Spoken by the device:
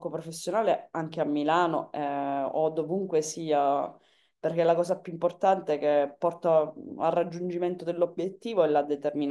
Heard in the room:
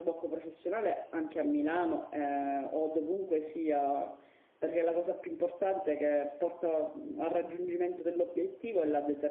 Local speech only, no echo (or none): none